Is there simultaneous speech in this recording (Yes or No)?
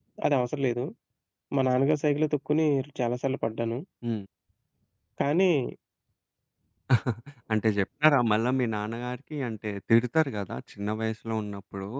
No